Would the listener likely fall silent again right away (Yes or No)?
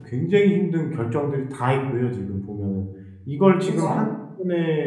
Yes